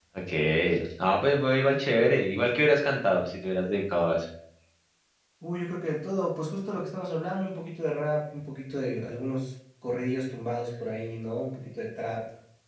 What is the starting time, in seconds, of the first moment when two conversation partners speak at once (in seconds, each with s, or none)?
none